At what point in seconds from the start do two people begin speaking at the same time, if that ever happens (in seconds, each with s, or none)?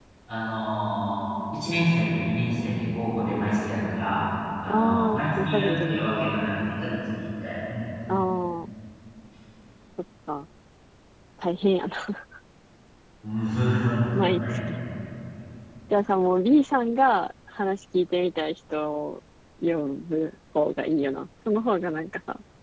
4.7 s